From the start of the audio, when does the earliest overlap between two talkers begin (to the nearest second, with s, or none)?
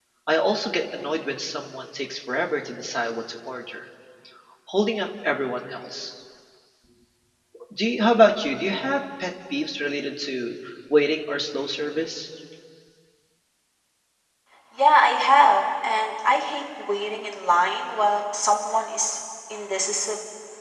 none